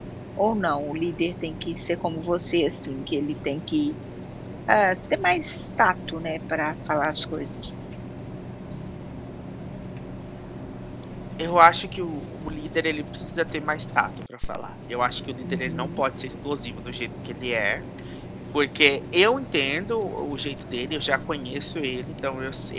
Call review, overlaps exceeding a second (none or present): none